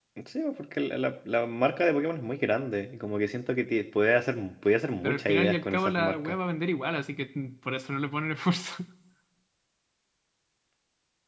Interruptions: present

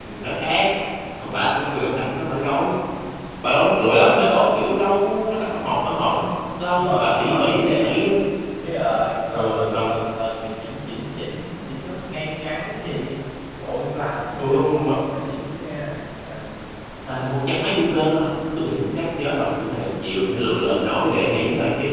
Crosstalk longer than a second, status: present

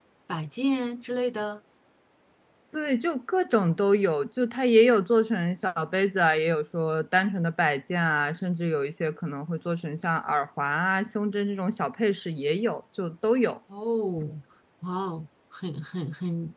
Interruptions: none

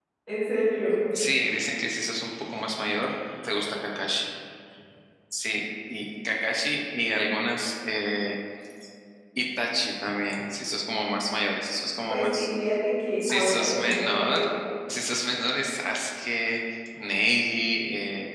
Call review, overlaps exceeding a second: present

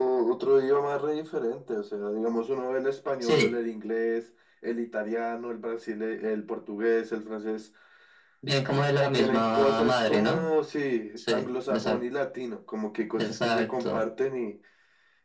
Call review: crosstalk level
present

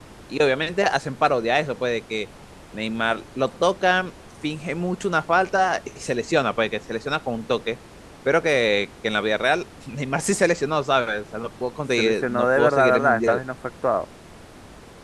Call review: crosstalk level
present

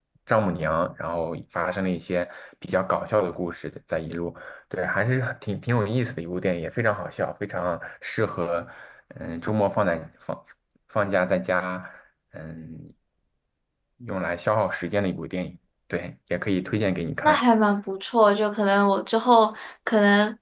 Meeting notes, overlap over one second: none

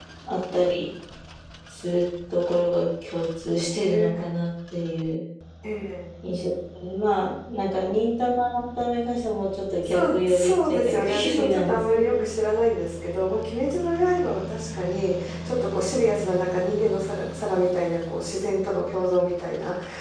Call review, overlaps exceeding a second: present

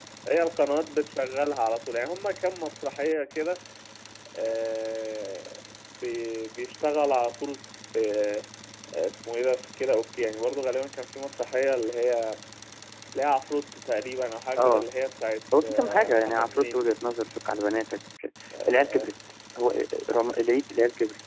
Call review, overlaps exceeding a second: present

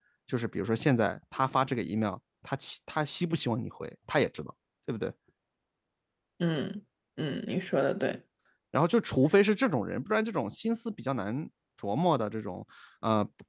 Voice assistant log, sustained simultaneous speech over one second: none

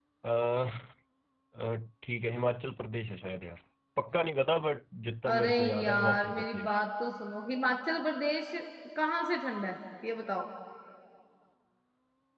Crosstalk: present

